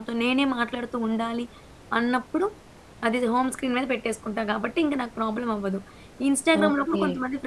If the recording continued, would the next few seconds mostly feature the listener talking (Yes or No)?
No